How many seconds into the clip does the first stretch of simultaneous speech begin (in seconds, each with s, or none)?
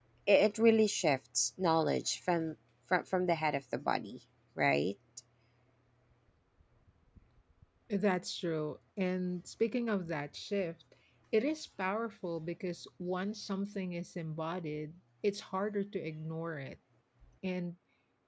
none